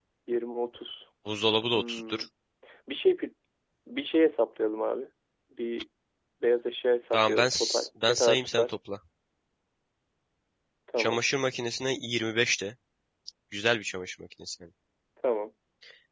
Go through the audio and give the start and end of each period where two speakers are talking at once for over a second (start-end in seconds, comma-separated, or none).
7.1-8.7